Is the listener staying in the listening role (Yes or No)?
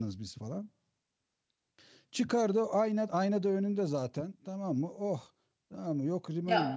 No